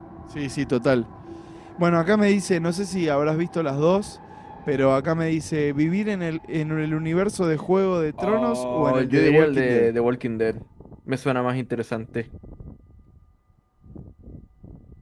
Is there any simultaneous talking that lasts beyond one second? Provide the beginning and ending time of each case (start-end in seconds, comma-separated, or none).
8.2-9.9